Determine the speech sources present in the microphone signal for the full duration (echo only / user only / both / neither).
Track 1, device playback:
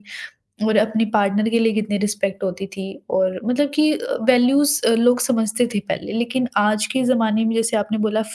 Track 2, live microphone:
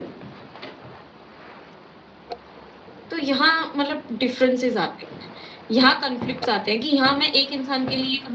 user only